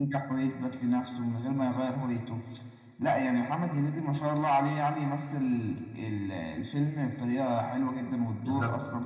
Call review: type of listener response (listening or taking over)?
taking over